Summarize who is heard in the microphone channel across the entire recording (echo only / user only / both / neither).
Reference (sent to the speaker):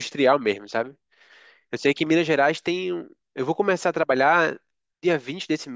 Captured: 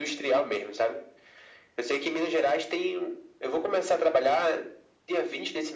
echo only